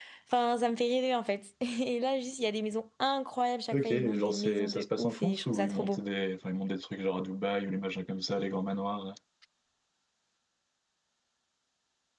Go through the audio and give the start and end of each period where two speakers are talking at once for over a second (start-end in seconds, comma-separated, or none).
3.7-6.0